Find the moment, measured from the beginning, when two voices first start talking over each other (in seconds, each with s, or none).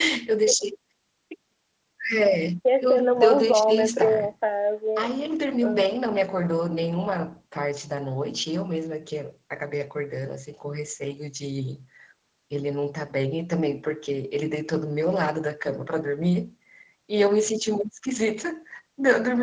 2.8 s